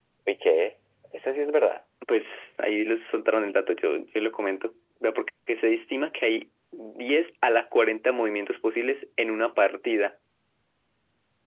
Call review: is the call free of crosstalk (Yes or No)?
Yes